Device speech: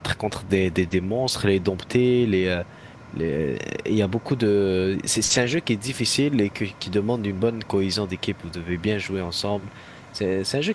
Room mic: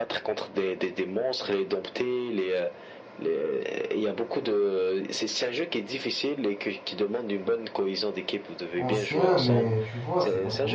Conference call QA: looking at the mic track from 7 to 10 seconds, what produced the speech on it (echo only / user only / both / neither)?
both